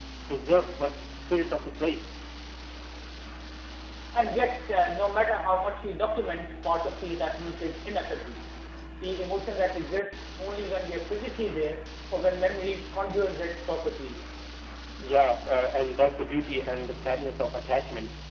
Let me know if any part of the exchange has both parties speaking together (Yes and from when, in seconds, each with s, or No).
No